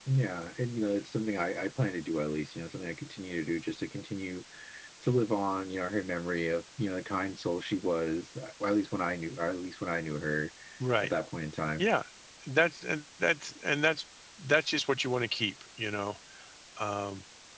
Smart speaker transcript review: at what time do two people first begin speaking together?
none

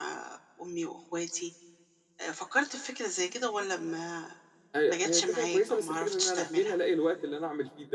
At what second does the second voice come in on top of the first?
4.9 s

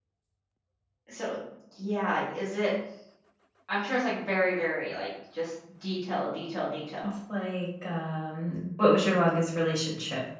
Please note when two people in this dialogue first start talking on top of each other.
none

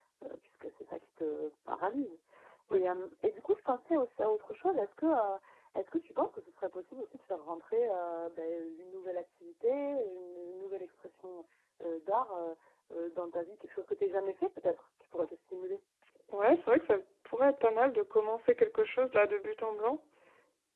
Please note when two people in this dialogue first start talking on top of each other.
none

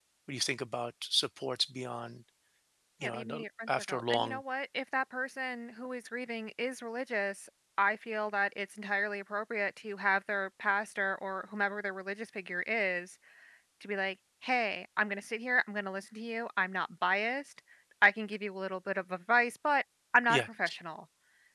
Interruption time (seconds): 3.0 s

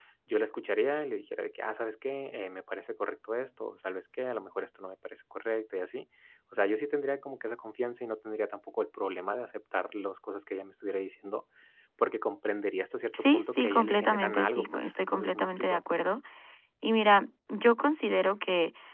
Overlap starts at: 13.1 s

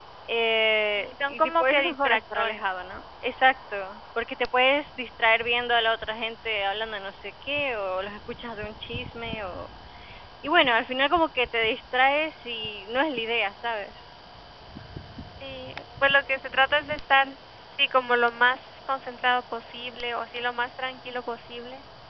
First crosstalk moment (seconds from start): 1.0 s

